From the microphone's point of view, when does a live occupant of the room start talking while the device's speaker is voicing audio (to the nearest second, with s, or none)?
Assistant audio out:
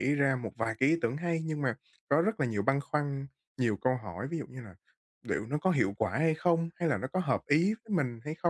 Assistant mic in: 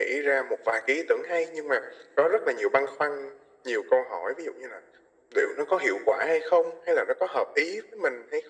none